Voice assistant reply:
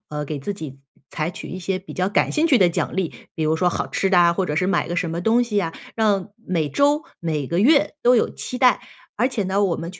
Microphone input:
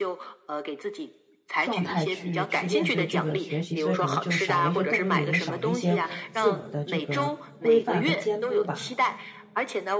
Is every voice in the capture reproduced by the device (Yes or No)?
No